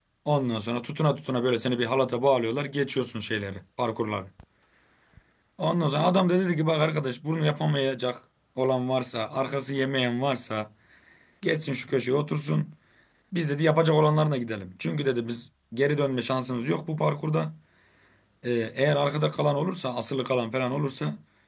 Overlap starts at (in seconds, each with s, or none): none